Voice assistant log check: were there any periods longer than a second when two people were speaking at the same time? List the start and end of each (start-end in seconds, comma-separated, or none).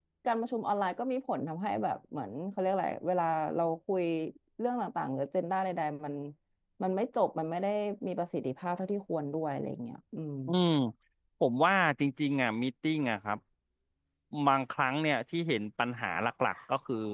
none